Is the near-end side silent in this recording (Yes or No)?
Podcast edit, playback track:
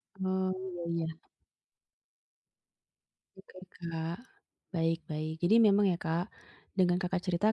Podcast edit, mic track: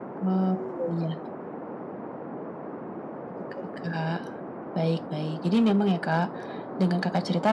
Yes